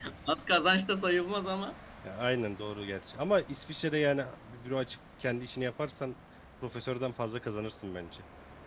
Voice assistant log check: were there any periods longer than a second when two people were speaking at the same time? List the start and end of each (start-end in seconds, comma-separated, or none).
none